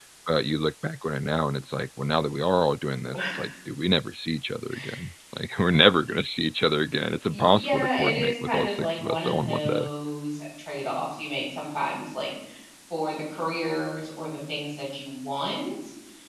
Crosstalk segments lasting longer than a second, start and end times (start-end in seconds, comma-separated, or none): 7.3-9.9